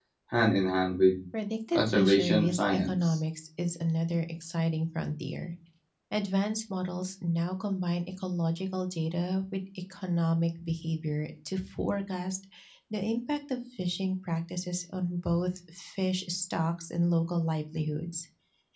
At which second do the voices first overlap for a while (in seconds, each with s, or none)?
1.7 s